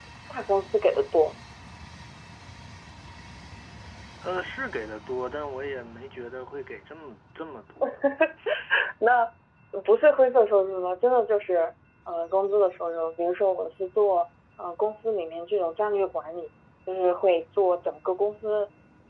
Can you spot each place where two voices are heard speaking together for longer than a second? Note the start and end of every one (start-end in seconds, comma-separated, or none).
none